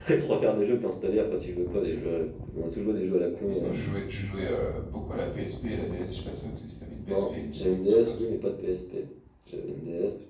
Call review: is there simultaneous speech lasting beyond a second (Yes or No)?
Yes